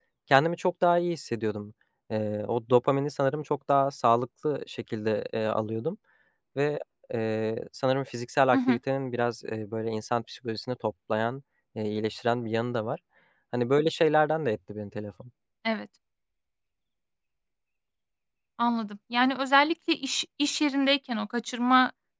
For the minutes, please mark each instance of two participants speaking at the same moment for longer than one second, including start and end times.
none

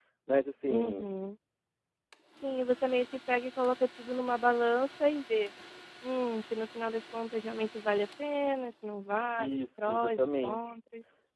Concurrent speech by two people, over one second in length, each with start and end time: 9.4-10.6

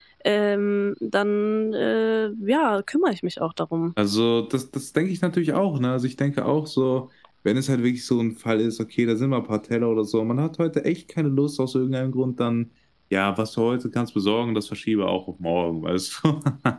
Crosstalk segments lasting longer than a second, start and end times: none

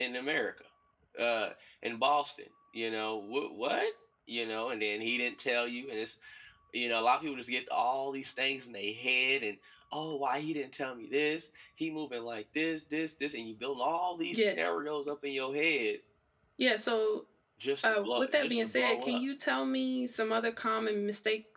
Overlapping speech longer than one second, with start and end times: 17.8-19.2

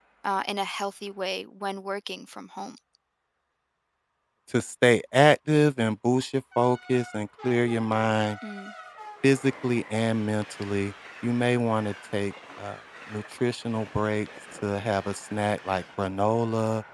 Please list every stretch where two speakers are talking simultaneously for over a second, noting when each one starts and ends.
none

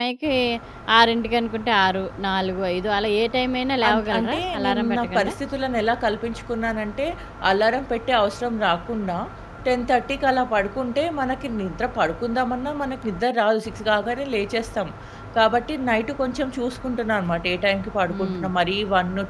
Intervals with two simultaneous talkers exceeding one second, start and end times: 3.9-5.3

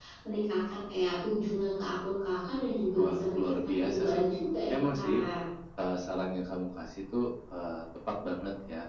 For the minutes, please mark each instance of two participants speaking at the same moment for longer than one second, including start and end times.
3.0-4.2

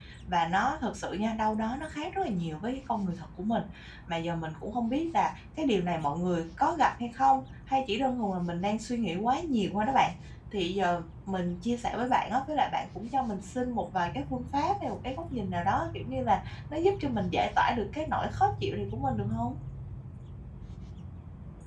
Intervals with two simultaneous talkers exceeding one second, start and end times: none

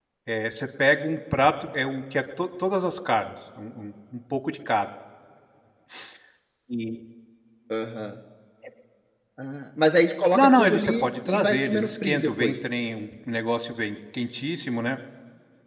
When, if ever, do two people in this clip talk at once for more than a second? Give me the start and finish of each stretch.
10.3-12.5

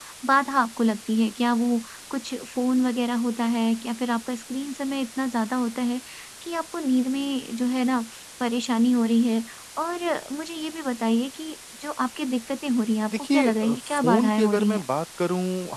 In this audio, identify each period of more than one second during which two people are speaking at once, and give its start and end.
13.1-14.8

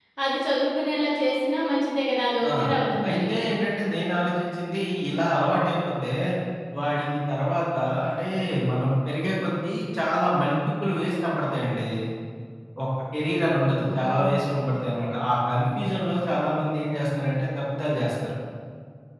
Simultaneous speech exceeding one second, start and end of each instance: none

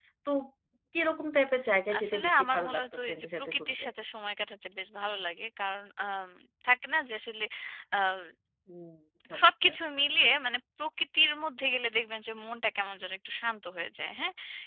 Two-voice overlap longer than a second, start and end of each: 2.0-3.9

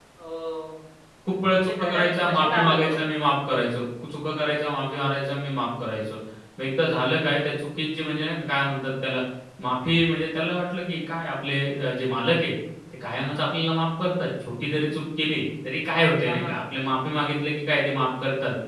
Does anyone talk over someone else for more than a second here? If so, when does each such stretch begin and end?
1.5-3.0

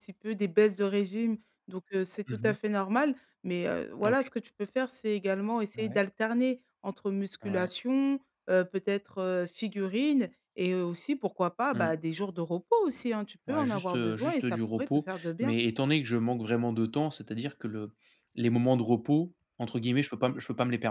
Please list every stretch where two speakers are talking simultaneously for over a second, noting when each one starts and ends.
13.5-15.5

